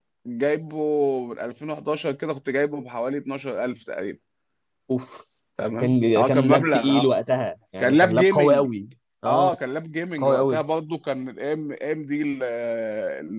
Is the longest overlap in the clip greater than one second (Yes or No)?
Yes